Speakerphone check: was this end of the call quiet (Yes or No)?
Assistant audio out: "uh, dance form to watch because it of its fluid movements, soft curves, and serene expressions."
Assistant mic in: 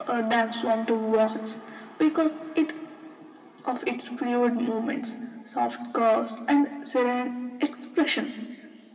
Yes